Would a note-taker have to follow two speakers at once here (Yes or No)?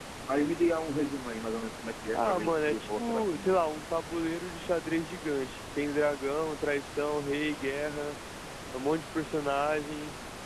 Yes